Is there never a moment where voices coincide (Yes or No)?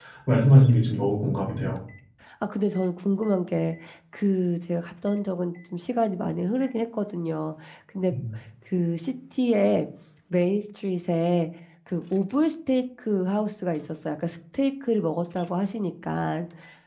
Yes